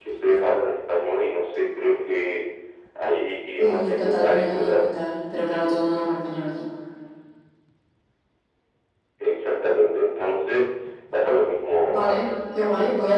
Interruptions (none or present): present